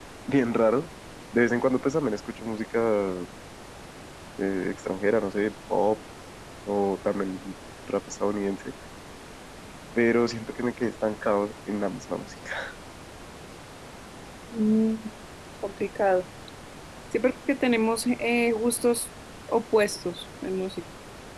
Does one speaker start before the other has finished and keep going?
No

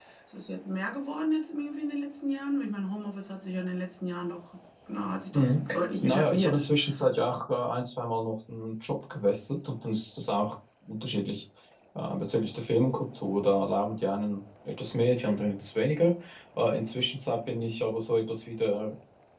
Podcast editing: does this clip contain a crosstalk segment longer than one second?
Yes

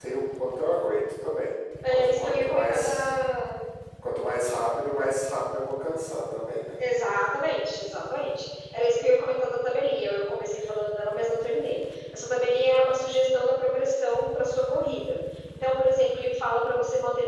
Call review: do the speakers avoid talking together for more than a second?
No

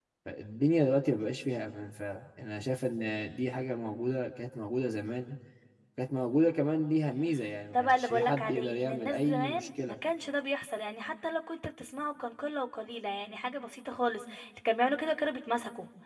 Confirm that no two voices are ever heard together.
No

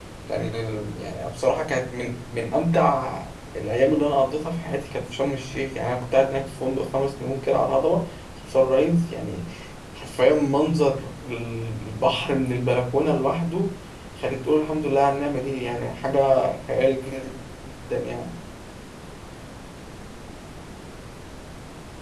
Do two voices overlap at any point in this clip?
No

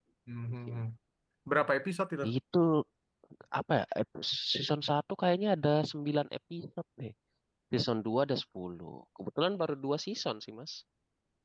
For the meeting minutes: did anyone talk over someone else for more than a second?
No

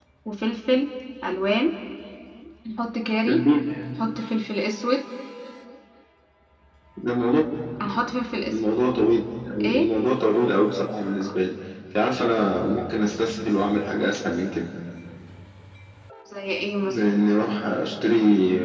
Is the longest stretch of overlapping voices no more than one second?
Yes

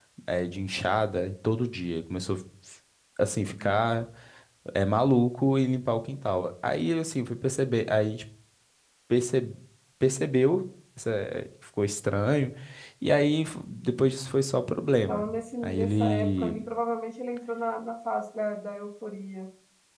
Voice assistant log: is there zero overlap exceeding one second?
No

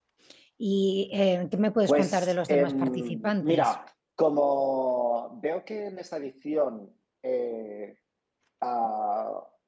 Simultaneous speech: Yes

